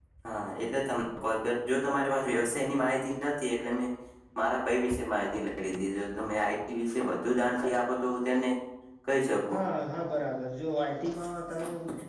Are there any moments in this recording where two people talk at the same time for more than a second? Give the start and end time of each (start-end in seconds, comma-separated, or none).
none